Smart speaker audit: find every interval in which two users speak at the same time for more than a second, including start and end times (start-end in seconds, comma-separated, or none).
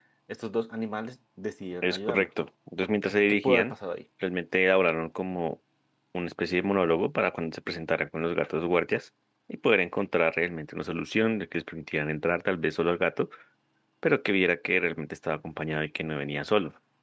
none